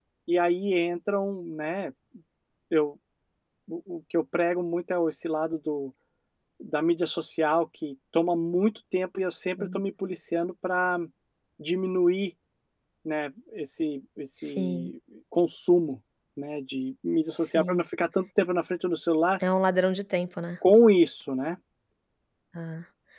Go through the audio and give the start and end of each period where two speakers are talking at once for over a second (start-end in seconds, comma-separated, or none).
none